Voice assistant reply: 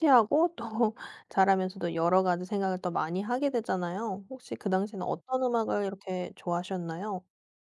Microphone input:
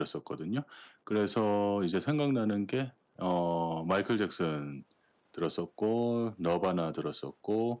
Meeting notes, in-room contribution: present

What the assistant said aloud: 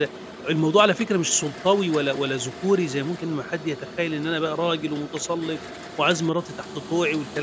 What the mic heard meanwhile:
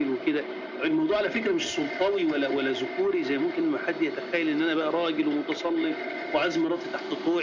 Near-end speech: none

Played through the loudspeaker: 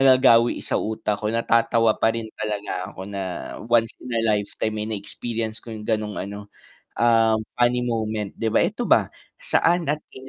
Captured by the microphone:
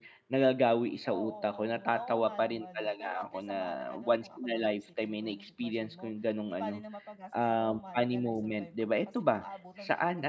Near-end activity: present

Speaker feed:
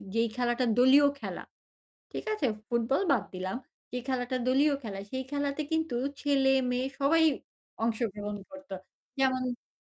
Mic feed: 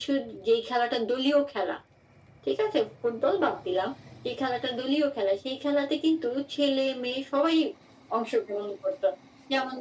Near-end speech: none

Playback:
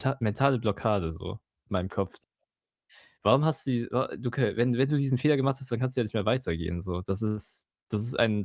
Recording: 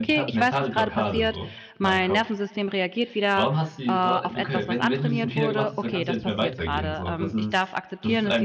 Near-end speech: present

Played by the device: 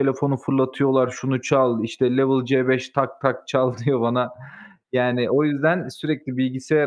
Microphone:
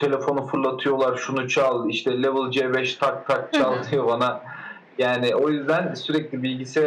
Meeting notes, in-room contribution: present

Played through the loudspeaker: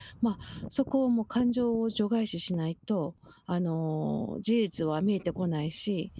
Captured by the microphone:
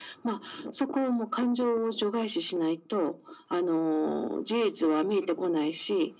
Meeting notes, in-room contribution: none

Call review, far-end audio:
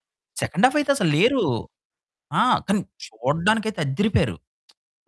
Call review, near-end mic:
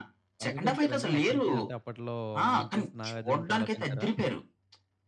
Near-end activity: present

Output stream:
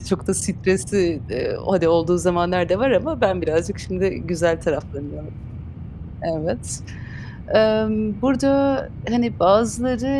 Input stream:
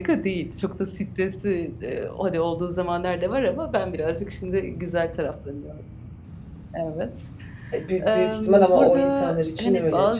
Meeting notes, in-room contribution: present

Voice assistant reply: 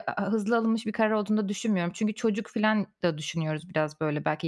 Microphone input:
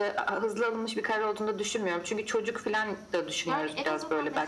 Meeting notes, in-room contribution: present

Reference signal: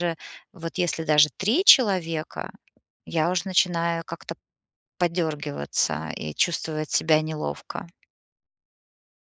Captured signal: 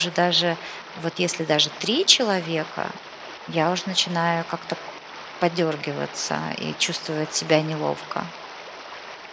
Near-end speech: none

